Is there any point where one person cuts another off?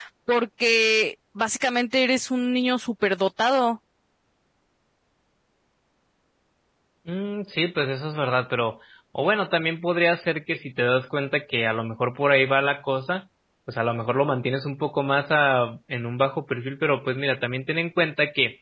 No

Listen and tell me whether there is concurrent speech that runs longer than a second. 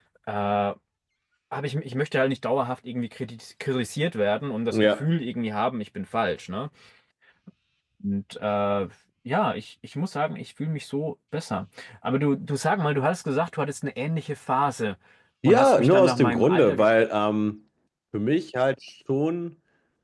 Yes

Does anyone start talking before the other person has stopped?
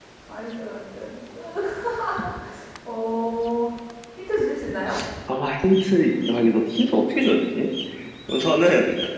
No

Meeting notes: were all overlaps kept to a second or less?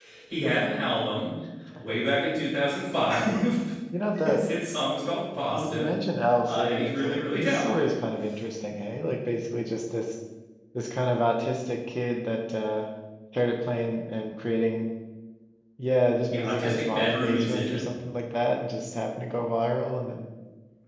No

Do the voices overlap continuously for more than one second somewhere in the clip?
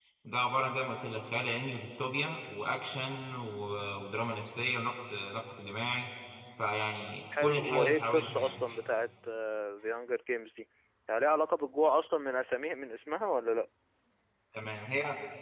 Yes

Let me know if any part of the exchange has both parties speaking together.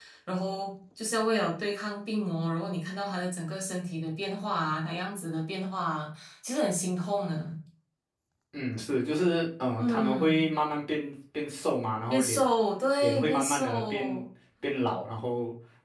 Yes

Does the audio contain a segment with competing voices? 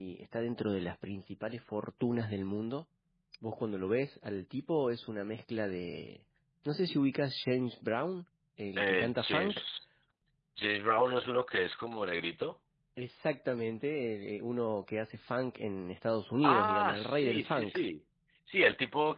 Yes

